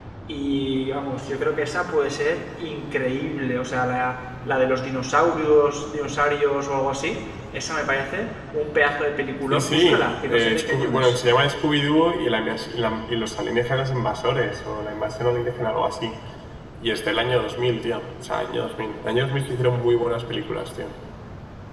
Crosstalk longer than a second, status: present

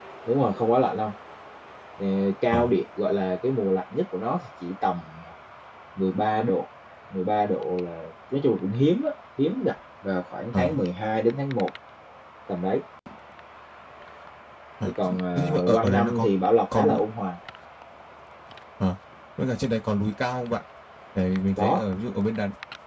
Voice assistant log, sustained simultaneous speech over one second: present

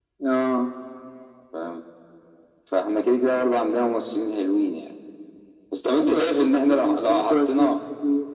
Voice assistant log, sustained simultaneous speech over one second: present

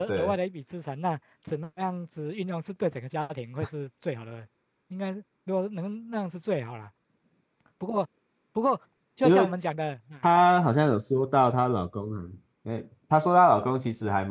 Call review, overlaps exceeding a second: none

